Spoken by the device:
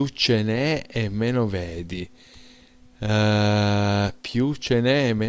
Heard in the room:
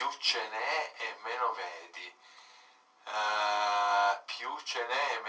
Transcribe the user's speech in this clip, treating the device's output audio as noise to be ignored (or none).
none